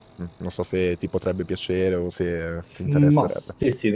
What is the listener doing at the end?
taking over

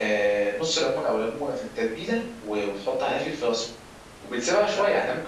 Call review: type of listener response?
listening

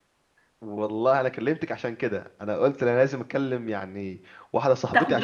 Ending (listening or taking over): listening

